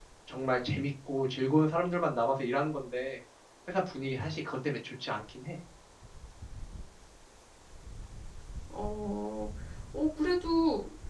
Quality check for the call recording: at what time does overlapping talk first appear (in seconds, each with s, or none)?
none